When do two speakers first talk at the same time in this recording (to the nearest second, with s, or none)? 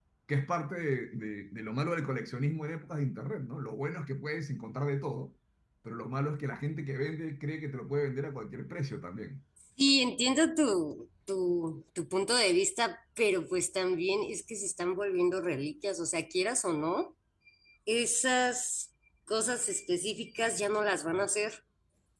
none